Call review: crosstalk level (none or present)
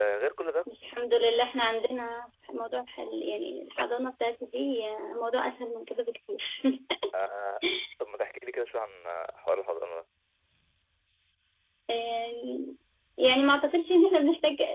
none